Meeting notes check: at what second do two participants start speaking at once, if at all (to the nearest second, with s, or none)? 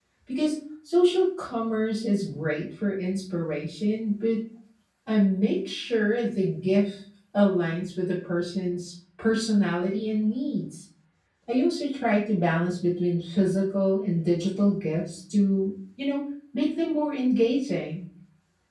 none